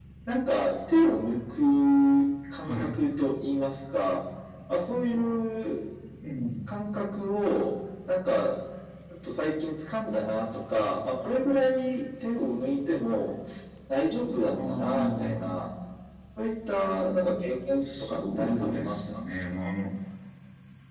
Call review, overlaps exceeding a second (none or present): present